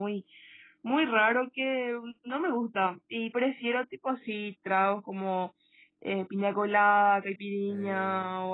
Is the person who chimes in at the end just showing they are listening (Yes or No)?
Yes